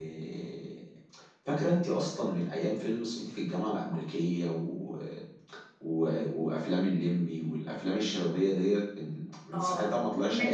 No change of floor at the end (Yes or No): No